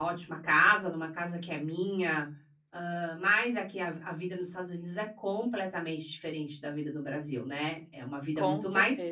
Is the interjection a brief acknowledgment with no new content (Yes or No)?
Yes